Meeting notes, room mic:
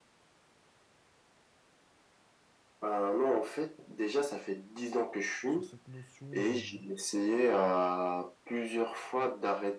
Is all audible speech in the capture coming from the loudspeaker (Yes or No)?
No